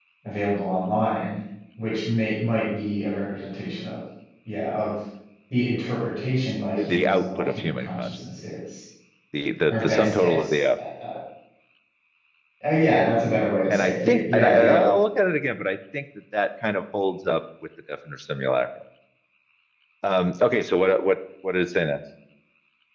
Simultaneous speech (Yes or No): Yes